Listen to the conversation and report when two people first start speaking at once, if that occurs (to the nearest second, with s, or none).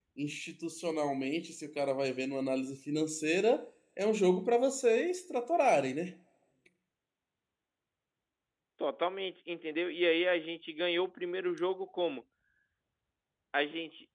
none